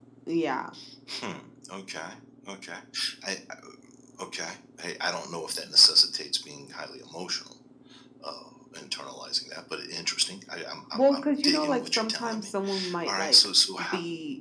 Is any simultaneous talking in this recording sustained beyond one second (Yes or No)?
Yes